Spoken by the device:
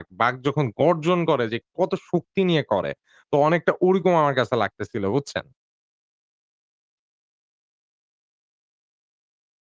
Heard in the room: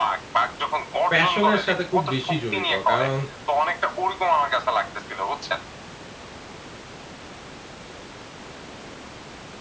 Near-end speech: present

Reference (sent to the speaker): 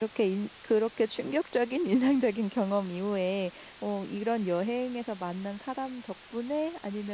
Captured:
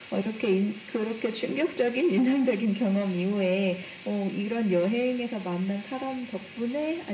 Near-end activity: none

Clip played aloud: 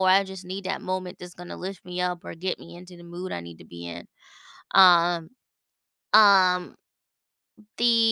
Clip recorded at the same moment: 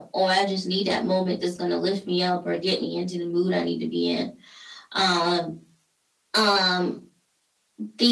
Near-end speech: none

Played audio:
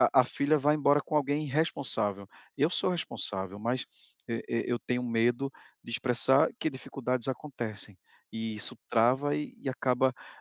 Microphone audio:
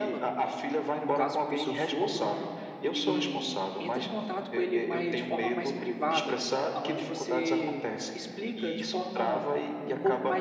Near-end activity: present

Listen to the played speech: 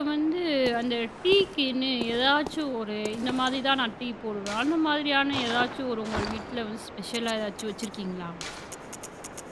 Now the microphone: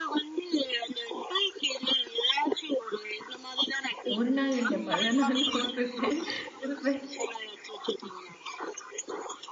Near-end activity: present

